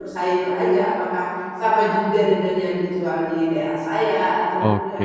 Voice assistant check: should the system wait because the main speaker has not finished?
No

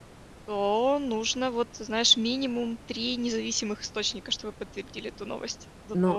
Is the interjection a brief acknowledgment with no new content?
No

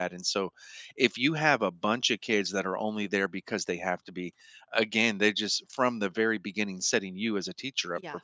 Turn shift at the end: No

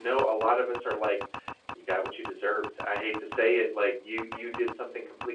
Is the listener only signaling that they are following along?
Yes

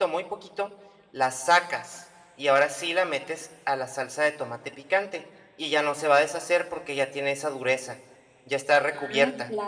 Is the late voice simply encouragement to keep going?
No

